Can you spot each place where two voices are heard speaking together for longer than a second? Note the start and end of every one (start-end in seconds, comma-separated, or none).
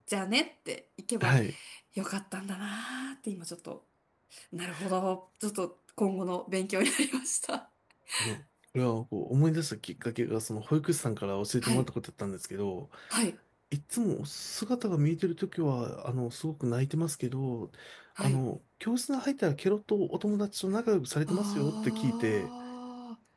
21.3-22.5